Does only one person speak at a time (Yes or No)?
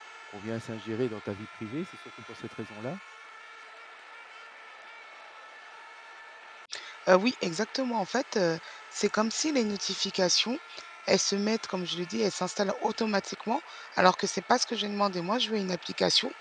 Yes